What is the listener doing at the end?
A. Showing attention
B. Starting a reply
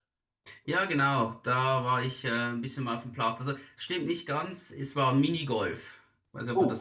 B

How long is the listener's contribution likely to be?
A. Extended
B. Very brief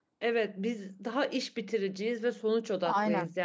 B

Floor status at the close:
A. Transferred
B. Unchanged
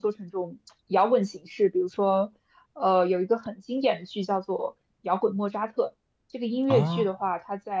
B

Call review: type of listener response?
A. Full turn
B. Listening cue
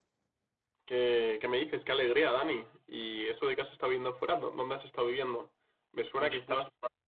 B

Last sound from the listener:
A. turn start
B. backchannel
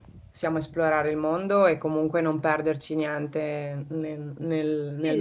A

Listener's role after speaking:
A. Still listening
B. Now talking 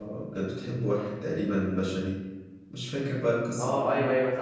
B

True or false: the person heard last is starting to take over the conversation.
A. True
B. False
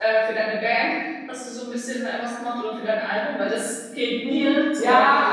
A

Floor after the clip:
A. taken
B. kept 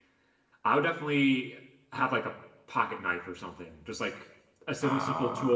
B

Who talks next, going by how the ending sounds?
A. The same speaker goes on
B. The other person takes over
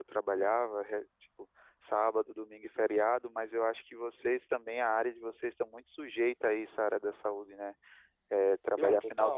A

